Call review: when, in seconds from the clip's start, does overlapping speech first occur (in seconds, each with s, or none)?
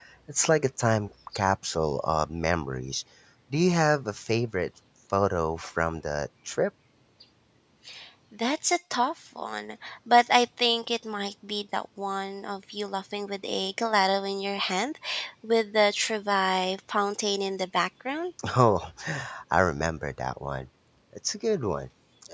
none